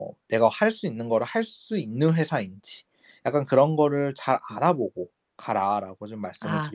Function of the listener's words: taking over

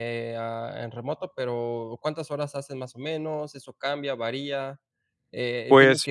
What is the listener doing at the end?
listening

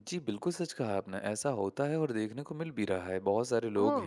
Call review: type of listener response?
listening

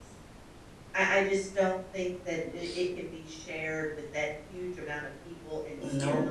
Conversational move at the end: listening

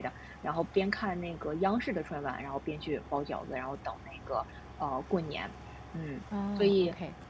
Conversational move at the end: taking over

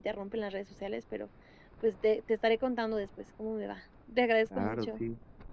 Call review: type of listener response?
taking over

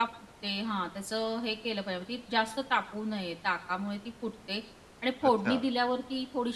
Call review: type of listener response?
listening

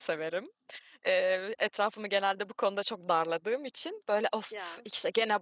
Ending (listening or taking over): listening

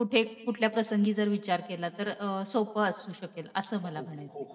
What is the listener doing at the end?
taking over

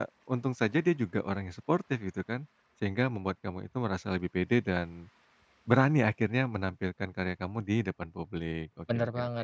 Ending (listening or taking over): taking over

